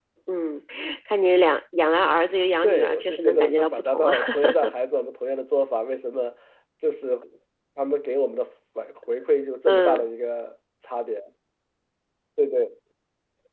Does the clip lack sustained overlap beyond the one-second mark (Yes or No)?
No